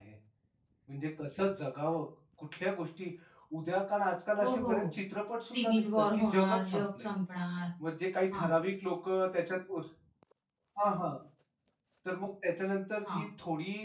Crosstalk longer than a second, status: present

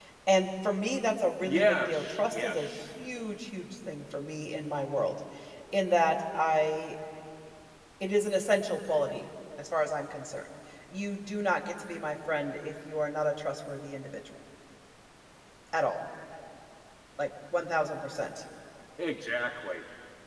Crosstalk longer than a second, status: present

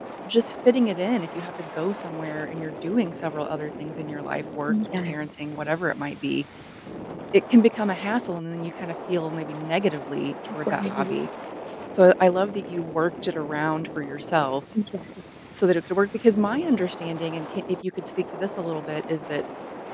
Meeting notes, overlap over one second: none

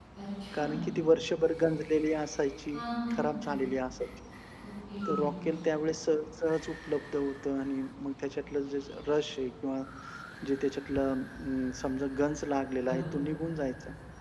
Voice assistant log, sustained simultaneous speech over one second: none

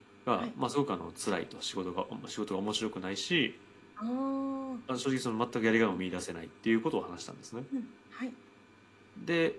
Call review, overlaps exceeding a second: none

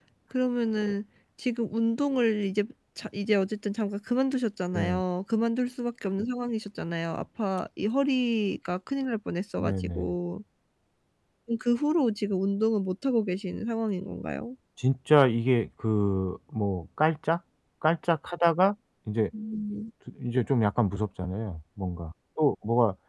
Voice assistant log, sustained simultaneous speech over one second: none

